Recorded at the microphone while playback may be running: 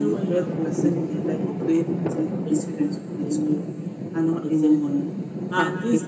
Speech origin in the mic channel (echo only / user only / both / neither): both